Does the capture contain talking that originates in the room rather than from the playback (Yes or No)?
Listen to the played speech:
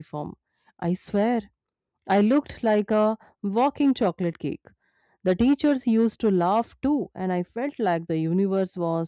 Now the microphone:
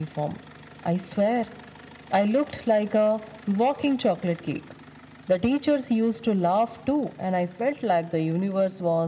No